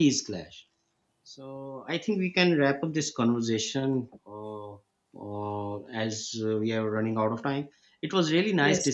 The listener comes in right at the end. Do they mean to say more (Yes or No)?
No